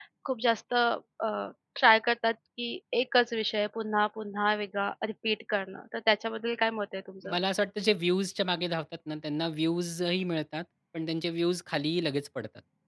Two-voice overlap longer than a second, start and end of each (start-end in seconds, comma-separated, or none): none